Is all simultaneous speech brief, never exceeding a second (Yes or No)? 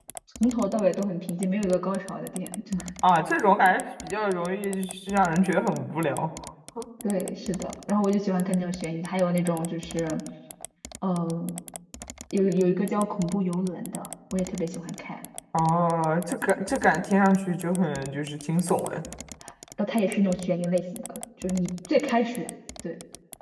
Yes